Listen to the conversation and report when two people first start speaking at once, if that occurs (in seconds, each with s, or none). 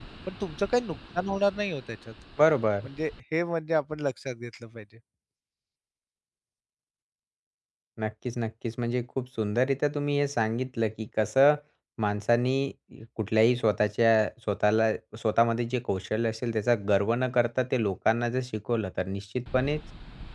none